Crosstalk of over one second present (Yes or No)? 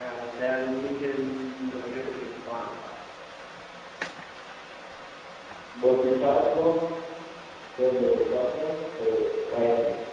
No